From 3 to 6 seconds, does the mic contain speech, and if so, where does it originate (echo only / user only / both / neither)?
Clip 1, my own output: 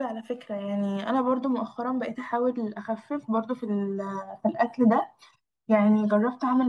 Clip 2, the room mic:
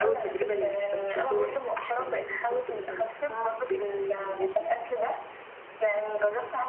both